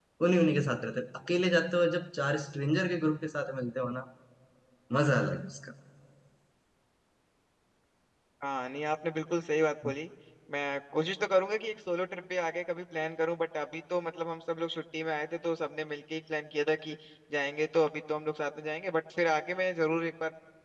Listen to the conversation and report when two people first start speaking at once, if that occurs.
none

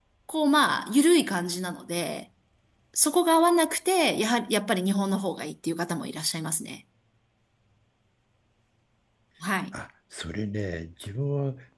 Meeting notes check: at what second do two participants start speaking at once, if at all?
none

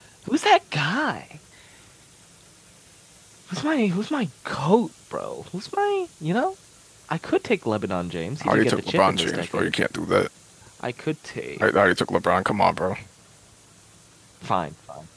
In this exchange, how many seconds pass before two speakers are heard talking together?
8.4 s

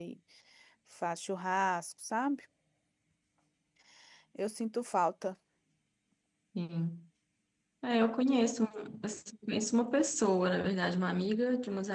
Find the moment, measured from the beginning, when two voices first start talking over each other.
none

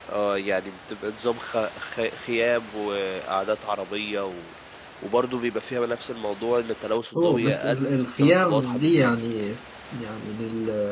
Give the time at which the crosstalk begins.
7.2 s

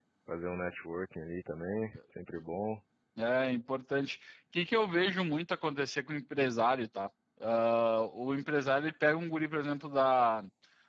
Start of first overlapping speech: none

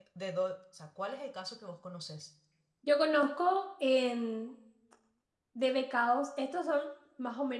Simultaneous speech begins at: none

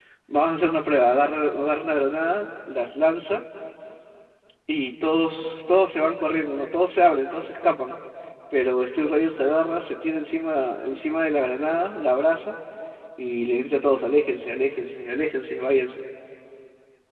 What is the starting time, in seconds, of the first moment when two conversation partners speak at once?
none

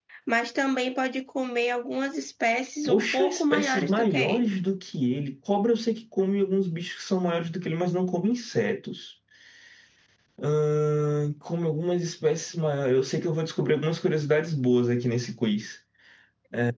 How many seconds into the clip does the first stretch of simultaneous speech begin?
2.9 s

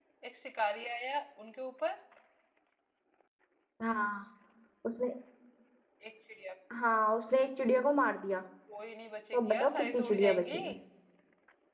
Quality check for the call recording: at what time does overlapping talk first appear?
9.4 s

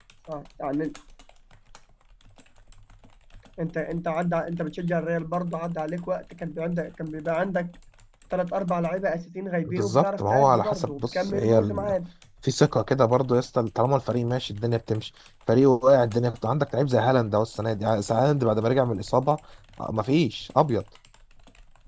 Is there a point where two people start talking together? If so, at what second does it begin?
9.6 s

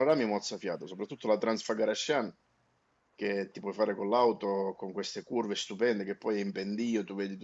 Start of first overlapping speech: none

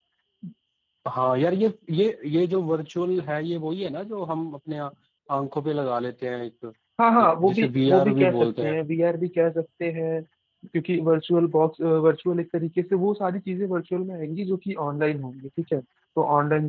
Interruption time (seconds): 7.2 s

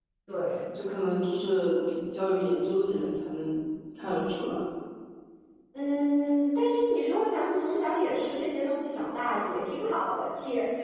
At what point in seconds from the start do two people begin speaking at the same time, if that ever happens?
none

